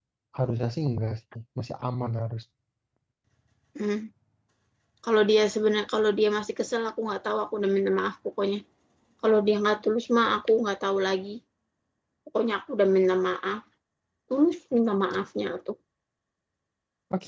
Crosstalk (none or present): none